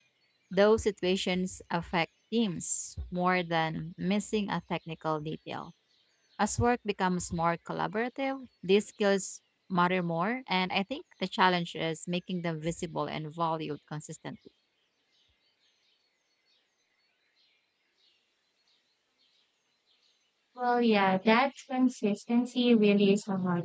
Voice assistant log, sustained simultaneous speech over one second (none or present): none